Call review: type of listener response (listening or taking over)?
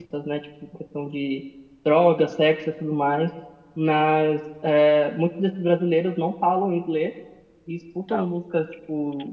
listening